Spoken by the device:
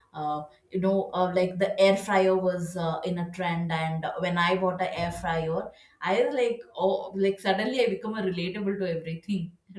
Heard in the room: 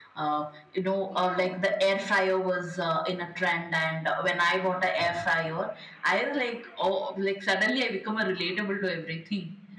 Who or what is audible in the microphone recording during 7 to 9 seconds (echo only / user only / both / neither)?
echo only